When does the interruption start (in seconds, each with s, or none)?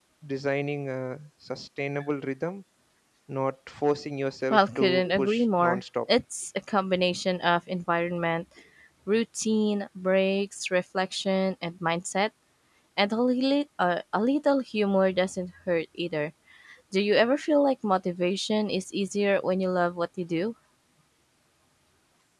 4.5 s